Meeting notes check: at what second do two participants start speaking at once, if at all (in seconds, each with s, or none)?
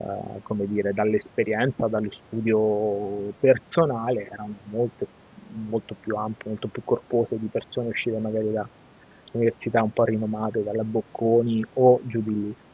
none